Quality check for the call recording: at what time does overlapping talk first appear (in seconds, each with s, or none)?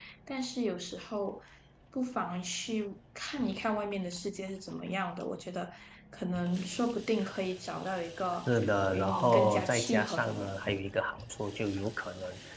8.9 s